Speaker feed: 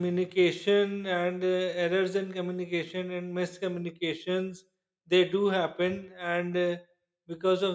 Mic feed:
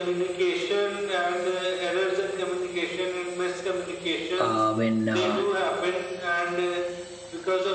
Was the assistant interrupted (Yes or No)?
Yes